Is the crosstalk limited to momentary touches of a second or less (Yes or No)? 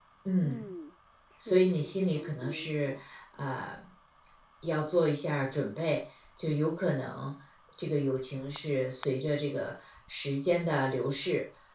No